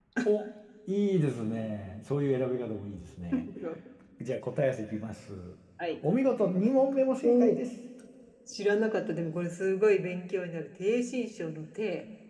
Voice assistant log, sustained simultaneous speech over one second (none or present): none